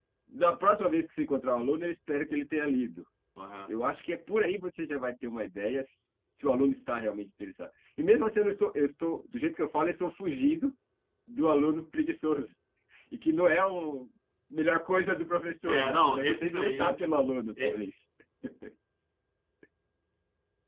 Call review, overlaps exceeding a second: present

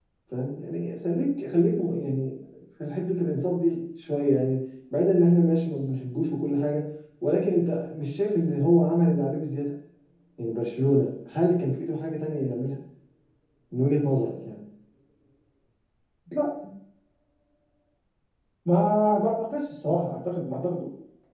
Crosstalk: none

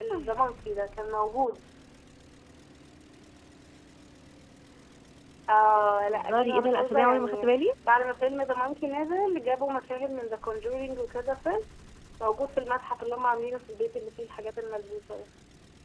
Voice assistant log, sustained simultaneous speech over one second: present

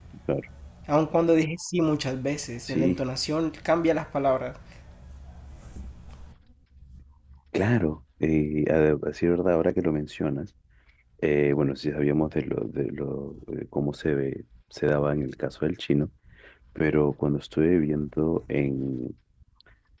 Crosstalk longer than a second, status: none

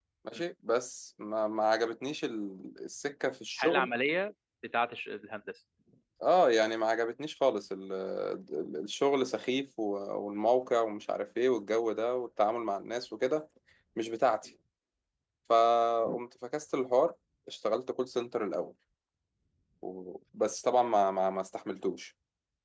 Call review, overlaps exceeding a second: none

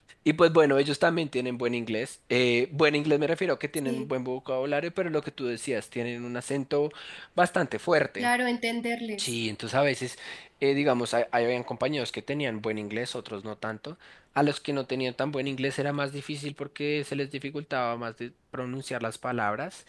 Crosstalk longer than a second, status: none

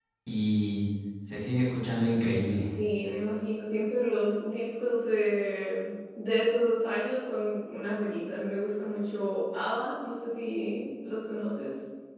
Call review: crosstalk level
none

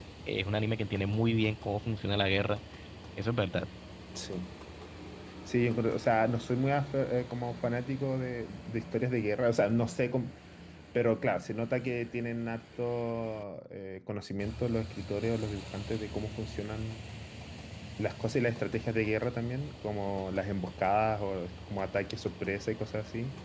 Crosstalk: none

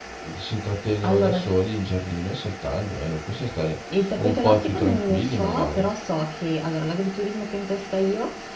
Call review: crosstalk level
present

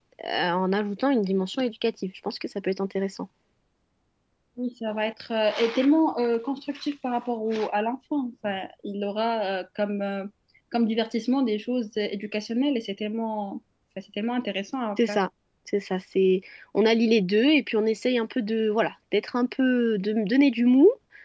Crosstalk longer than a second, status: none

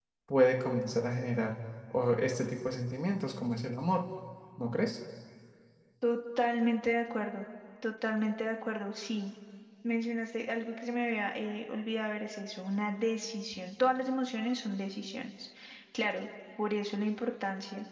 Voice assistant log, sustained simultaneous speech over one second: none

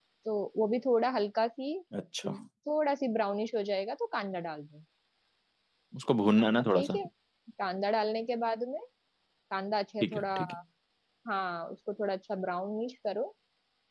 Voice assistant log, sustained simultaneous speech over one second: none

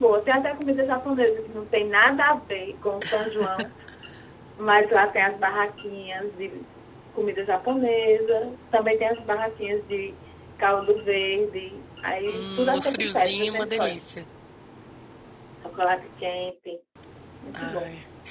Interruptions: present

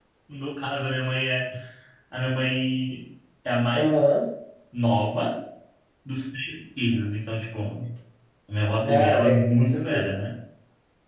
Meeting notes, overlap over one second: present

